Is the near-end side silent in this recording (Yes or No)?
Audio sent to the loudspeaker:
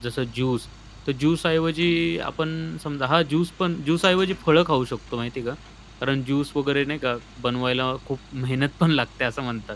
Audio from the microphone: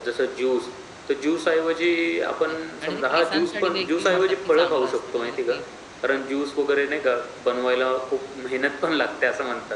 No